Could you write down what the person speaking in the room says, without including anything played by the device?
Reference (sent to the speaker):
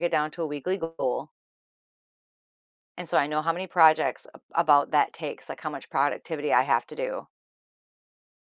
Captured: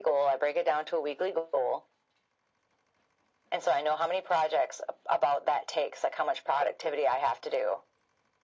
none

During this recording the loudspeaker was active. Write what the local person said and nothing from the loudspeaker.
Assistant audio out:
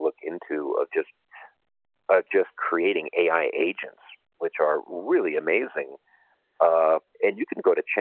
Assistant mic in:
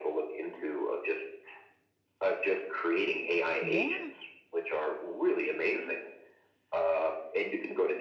Yeah.

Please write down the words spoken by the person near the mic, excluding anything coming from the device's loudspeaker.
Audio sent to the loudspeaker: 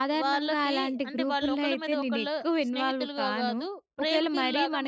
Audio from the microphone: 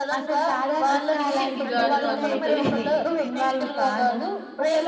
అది చిరిగి చిరిగి గాలివాన అవుతది.

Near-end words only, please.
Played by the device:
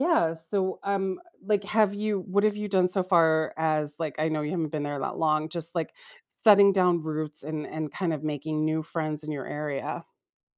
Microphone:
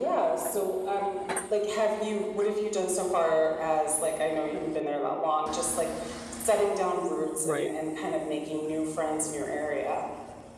Right.

